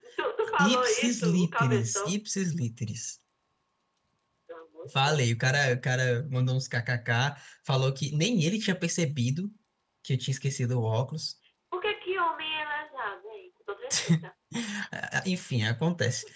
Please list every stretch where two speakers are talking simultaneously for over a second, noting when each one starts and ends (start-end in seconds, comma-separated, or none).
0.6-2.2